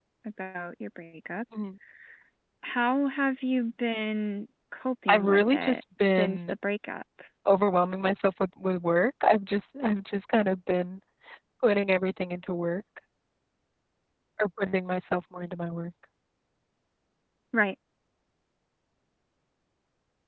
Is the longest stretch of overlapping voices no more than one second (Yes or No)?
No